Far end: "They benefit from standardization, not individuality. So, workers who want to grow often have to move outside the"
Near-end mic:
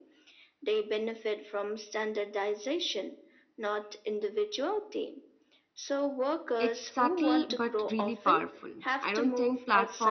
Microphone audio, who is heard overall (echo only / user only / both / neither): both